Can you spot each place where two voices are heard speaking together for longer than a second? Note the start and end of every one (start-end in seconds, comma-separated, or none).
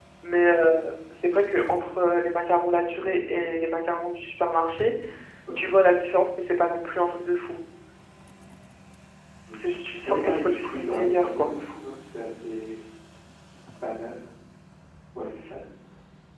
10.0-11.5